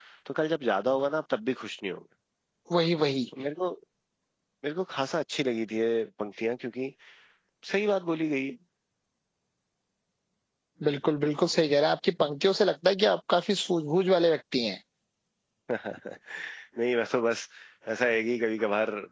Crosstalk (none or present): none